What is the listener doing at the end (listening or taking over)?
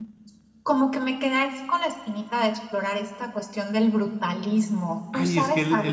taking over